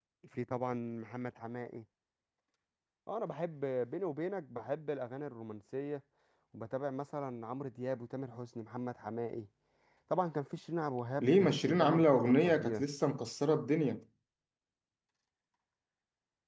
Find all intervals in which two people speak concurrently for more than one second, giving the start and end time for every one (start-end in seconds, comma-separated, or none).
11.2-12.8